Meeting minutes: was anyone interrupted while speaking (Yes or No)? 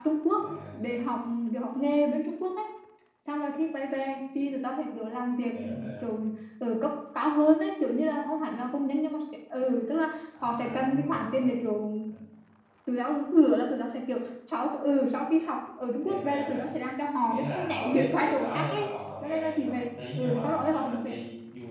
Yes